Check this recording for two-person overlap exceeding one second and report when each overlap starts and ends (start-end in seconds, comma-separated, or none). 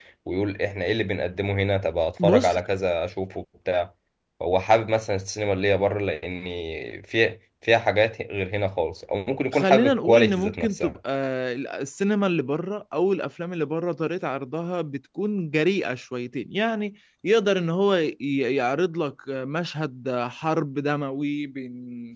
9.5-11.0